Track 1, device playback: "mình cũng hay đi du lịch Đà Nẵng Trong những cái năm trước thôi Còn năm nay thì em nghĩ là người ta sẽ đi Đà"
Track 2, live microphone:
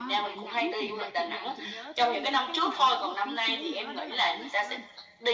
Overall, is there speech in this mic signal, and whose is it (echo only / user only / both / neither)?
both